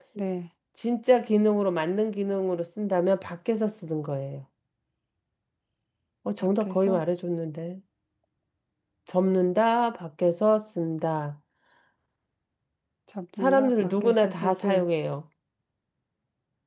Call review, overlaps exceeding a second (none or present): present